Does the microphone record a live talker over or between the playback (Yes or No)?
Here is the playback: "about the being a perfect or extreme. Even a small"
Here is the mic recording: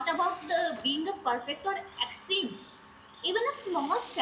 No